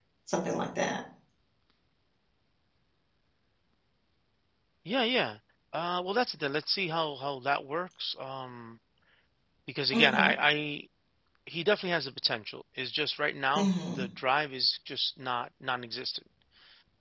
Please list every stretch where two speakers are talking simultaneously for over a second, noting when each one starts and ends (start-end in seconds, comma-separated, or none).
none